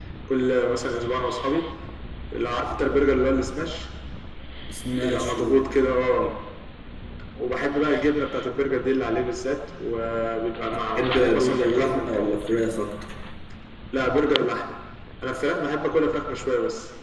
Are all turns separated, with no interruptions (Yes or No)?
No